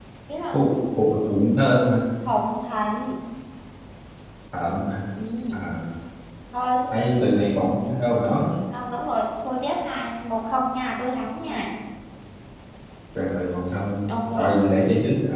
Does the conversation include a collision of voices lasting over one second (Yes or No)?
No